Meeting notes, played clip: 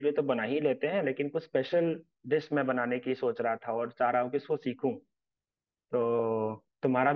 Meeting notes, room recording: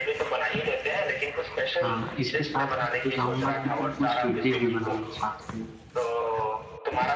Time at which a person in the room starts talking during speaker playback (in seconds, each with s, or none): 1.8 s